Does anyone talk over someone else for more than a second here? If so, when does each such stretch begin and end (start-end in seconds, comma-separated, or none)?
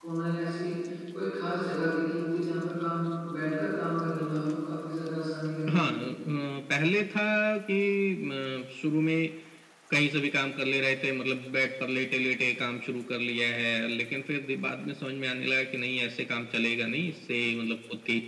none